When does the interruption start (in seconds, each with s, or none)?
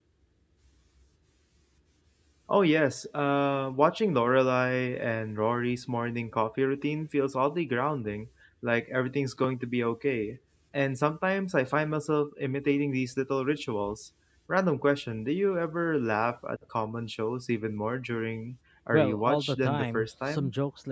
18.9 s